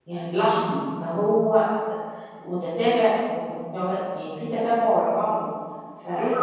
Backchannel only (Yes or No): No